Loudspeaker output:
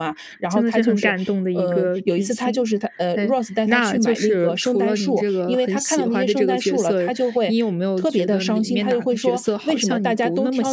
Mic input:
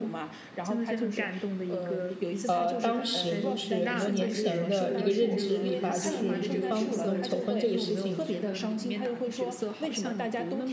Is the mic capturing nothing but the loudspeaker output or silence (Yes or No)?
No